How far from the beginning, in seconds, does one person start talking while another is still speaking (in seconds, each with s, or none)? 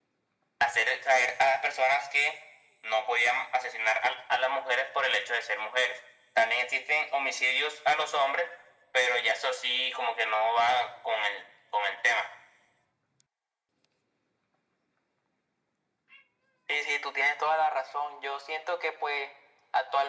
none